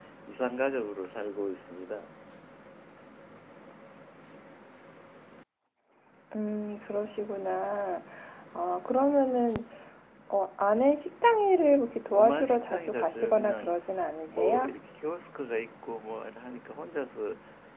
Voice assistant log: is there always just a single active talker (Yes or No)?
No